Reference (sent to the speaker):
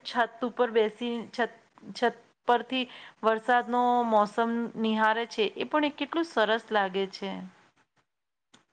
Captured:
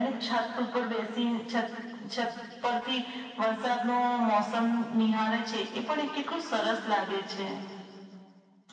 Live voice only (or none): none